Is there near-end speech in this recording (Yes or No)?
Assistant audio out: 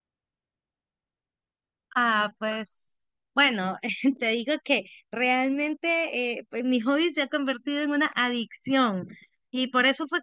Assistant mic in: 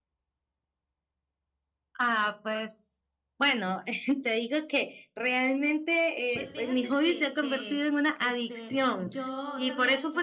Yes